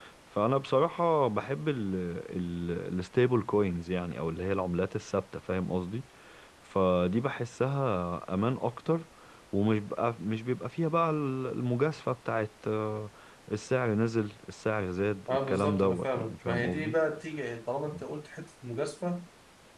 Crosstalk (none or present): present